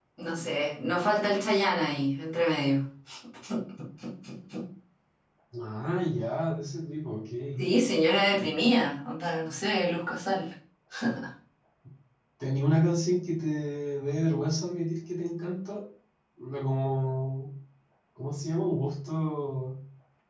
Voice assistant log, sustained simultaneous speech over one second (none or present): none